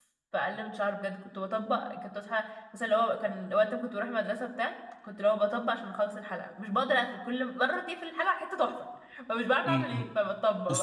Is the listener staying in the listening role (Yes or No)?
No